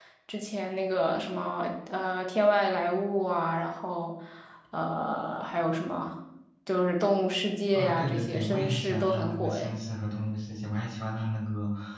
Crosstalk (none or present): present